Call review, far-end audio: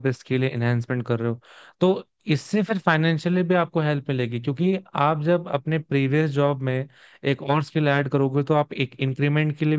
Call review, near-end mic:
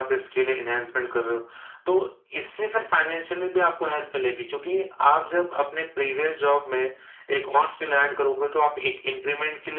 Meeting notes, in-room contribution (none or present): none